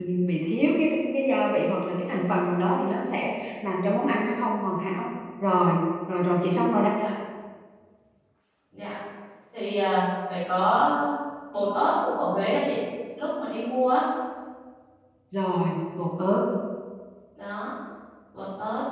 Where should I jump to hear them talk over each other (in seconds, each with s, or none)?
none